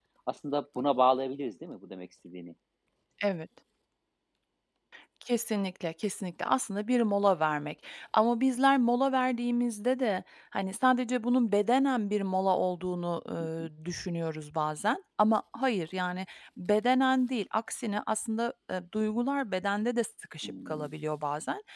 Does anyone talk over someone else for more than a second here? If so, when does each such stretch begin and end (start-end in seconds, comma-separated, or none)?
none